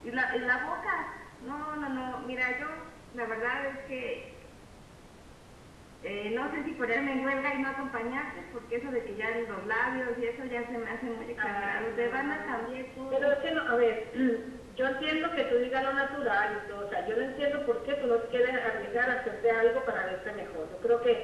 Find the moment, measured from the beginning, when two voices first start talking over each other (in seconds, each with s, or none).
11.4 s